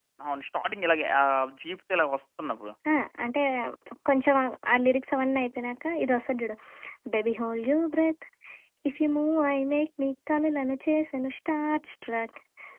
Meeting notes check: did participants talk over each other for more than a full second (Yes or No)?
No